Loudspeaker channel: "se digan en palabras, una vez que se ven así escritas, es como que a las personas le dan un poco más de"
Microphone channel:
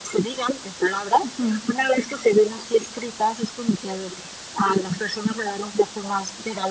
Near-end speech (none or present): present